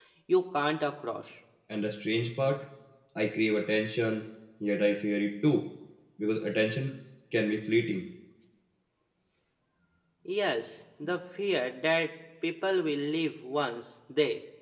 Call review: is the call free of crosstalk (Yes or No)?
Yes